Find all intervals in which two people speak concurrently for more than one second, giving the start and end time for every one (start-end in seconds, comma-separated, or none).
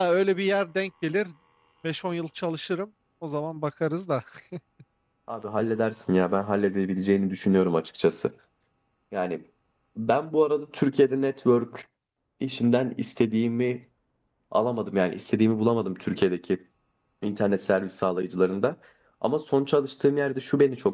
none